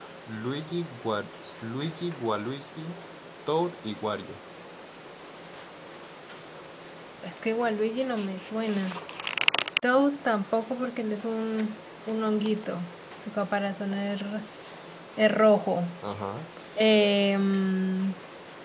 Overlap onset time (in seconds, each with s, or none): none